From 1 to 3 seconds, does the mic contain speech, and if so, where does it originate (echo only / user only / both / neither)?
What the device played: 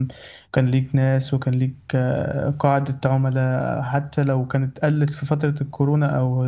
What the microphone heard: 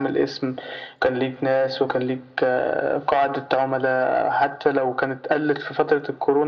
echo only